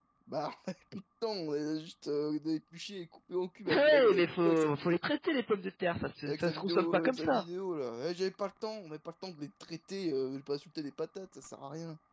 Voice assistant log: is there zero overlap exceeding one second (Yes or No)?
No